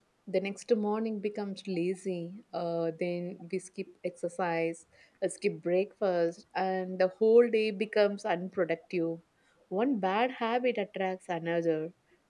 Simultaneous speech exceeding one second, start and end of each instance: none

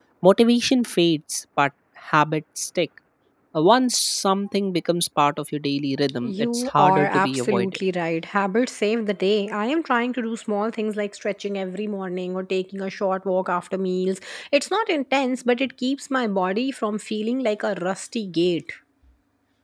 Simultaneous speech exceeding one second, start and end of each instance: 6.2-7.8

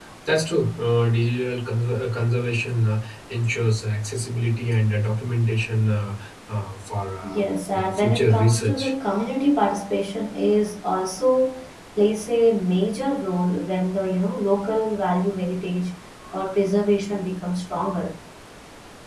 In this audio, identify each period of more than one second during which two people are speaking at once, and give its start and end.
7.2-8.9

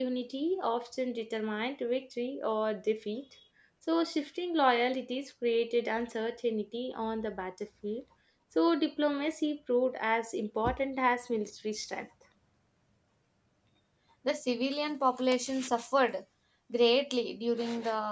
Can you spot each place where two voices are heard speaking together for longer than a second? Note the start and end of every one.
none

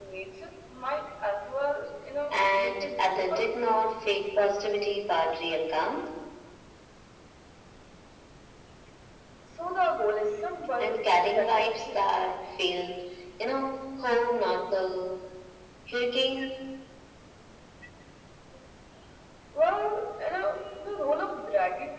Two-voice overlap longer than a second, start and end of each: 2.3-3.5, 10.8-12.2

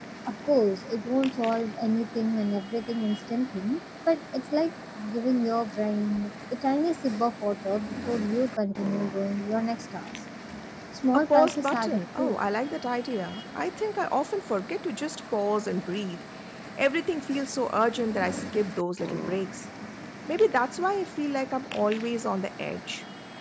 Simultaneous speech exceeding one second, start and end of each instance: 11.1-12.4

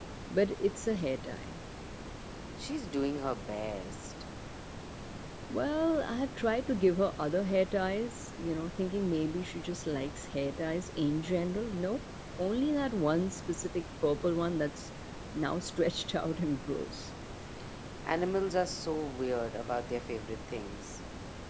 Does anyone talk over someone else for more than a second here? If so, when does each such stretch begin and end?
none

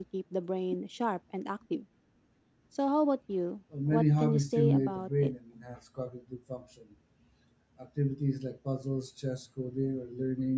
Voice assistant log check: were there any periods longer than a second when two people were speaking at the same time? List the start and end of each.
3.9-5.3

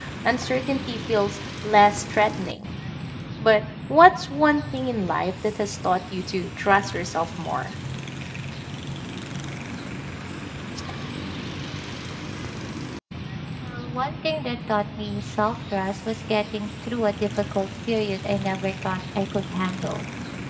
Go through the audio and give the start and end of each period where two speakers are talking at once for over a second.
none

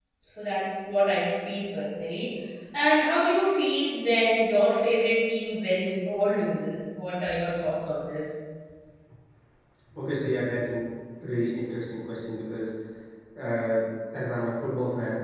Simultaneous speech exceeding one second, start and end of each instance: none

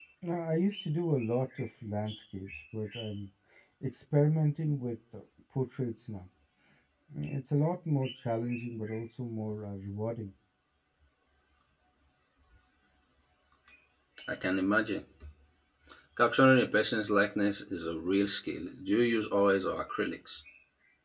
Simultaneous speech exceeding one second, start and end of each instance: none

